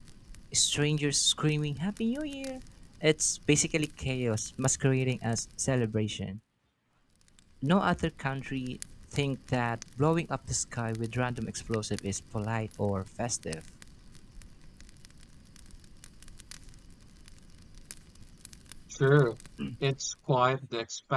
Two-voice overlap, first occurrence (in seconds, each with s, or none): none